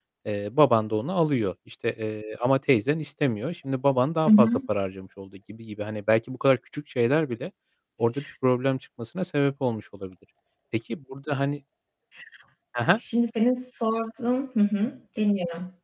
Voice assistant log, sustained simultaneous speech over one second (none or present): none